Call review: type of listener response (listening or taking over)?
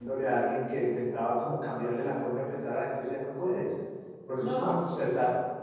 listening